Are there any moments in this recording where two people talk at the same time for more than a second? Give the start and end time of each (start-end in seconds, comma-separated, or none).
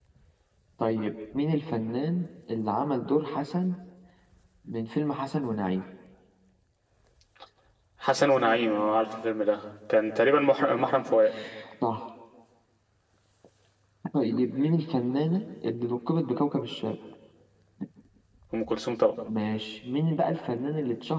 none